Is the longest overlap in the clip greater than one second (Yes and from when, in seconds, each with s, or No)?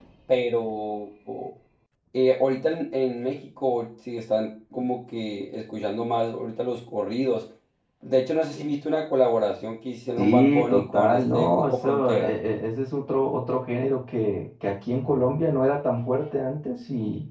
Yes, from 10.2 s